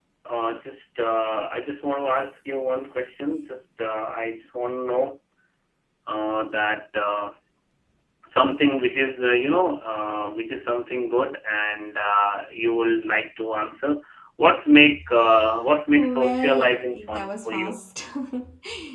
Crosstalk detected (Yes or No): Yes